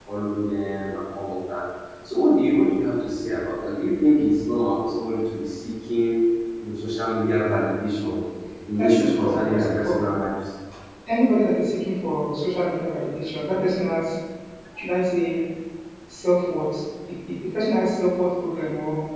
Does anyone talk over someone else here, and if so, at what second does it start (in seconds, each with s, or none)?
8.8 s